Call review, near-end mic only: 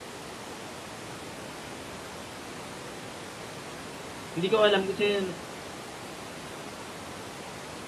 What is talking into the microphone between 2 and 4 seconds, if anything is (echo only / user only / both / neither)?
neither